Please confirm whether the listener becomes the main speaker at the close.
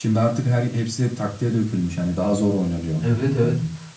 Yes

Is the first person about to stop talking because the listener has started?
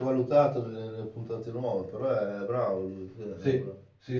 Yes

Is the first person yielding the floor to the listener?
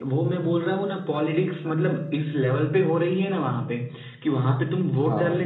No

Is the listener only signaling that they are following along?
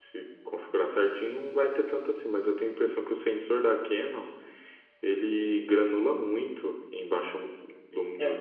No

